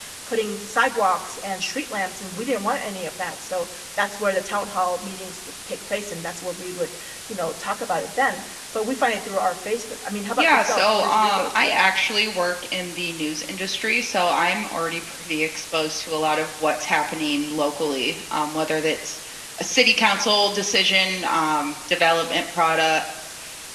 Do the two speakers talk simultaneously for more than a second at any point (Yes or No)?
Yes